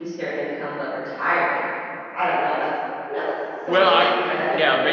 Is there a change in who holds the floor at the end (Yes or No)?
Yes